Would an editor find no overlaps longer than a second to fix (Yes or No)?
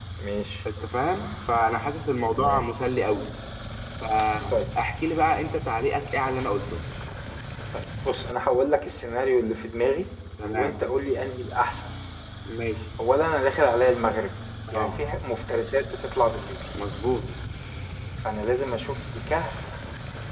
Yes